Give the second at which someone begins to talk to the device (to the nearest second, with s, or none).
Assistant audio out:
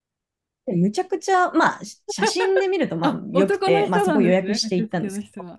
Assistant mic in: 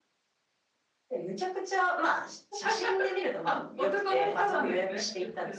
none